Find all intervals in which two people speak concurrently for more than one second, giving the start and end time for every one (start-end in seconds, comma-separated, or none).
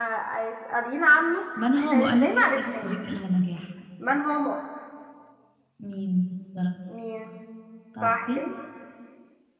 1.8-3.0